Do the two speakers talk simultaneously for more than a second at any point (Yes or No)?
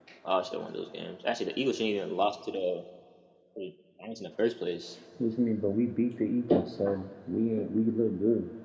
No